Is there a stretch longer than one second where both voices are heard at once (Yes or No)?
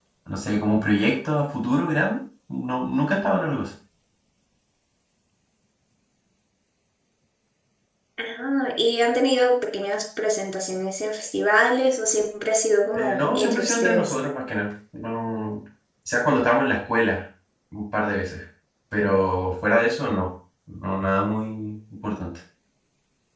Yes